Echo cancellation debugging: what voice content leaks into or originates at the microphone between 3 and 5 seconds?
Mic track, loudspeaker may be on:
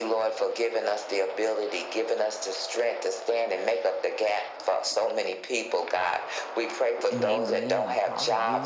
echo only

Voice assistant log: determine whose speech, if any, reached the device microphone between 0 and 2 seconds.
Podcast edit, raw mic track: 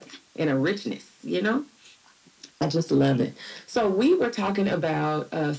echo only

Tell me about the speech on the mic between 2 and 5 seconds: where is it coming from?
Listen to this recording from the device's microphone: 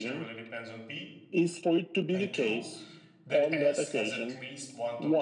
both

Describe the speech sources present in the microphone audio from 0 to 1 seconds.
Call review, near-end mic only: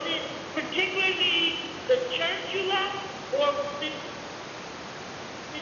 echo only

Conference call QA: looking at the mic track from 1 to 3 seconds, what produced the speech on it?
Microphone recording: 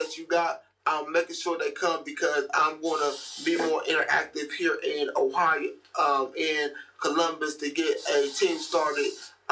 echo only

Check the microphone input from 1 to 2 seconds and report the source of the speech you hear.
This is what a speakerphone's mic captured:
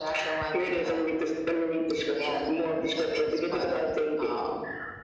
echo only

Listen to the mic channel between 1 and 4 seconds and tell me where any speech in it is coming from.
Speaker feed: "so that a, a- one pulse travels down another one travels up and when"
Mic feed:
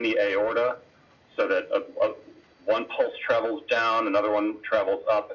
echo only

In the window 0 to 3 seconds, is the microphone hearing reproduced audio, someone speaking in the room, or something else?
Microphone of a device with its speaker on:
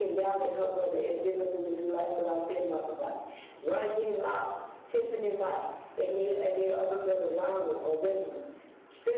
echo only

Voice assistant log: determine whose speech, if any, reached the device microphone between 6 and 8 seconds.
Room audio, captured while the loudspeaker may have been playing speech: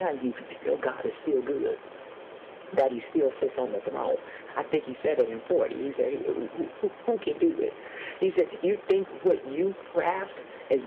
echo only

